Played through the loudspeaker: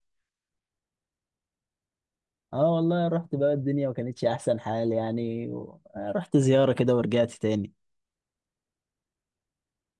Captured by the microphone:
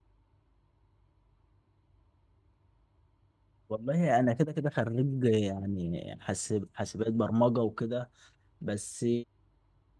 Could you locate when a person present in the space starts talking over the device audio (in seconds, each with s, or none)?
3.7 s